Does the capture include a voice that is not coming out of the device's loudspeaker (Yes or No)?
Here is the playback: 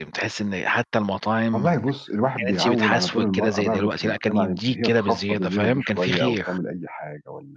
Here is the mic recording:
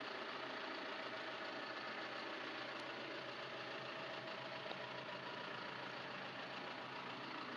No